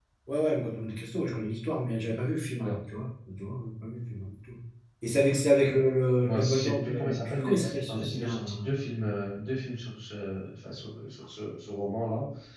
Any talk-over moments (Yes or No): Yes